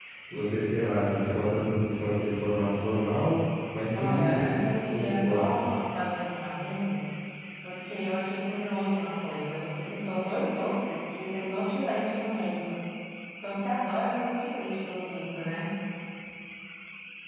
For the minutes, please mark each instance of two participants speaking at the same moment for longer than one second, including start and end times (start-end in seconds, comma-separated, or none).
4.0-5.4